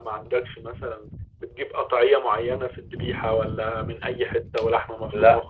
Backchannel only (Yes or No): No